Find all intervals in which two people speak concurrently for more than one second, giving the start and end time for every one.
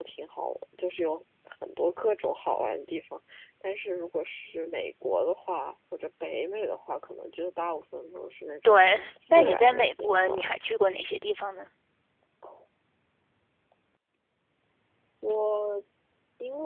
9.3-10.5

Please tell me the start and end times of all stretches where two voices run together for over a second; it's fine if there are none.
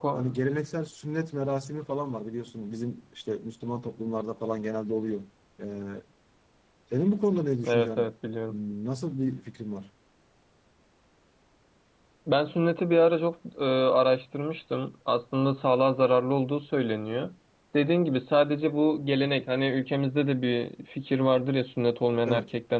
none

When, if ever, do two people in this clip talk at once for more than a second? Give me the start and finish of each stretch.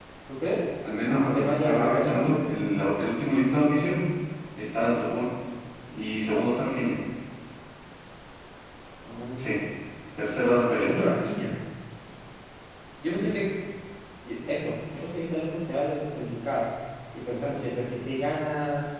1.1-2.4

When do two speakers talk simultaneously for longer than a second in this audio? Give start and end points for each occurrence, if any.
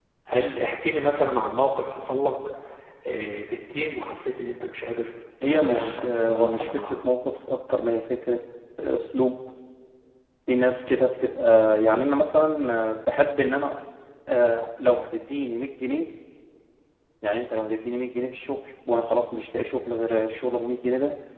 5.4-7.0

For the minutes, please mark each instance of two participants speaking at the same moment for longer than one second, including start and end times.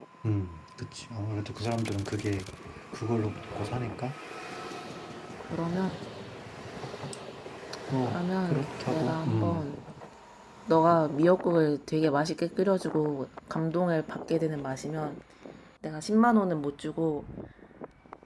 8.1-9.7

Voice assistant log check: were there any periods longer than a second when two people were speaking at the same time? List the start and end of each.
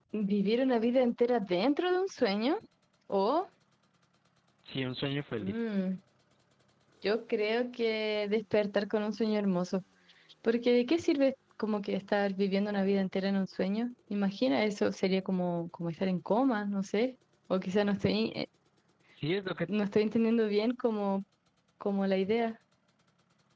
none

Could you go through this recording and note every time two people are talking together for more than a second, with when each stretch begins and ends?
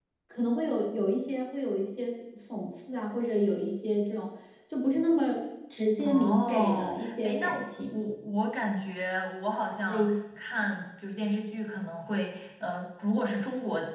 6.0-7.5

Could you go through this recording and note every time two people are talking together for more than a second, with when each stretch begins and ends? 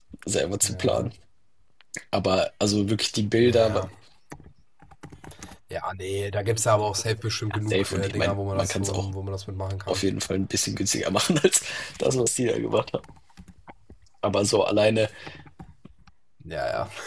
7.7-9.1

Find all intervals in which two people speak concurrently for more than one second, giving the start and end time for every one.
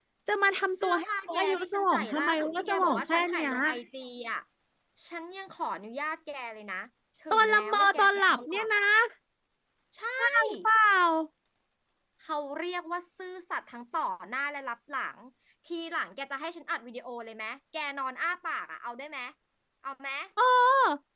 0.7-3.5, 7.3-8.7

